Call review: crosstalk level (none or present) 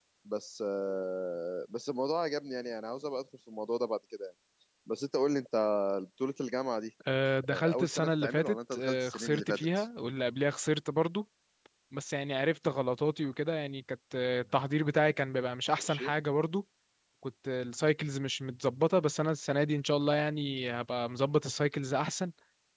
present